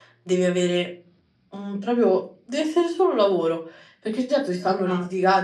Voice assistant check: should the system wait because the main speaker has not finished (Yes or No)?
Yes